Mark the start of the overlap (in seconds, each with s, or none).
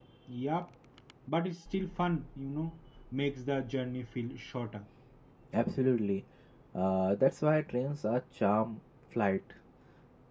none